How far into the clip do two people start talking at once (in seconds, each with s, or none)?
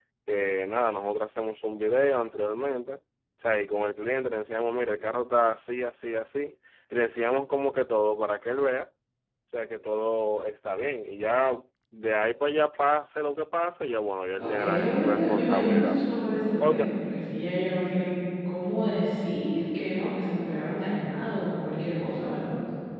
14.4 s